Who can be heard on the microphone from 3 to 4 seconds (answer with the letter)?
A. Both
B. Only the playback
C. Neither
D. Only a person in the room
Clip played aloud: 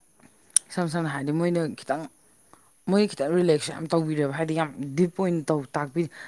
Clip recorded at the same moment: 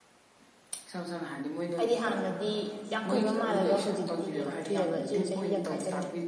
A